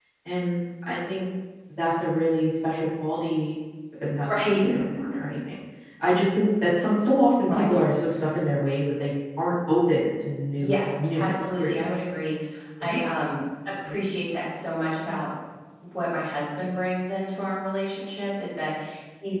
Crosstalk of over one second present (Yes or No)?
Yes